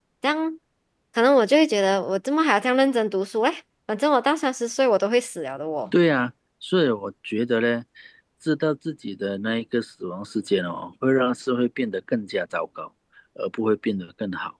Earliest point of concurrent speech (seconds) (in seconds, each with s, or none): none